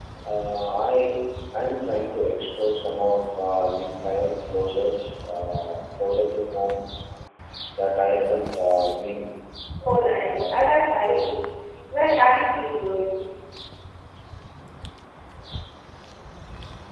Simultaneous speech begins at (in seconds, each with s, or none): 10.1 s